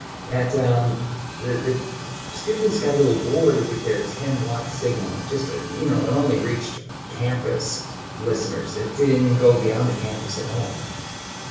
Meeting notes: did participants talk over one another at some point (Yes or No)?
No